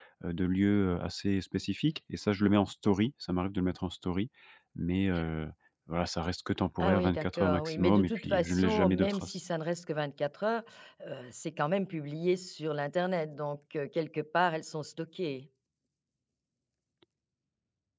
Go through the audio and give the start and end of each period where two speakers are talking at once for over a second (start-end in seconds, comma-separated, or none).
6.8-9.4